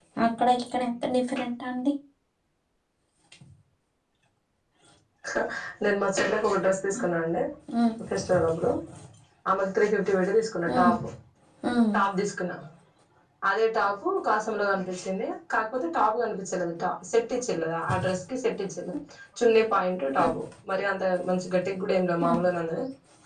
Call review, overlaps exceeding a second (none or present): none